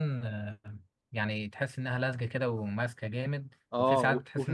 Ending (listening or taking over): taking over